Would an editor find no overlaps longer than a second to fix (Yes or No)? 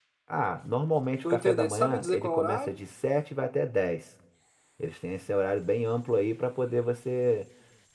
No